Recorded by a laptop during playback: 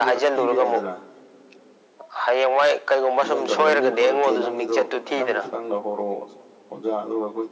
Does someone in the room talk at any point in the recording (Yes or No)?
Yes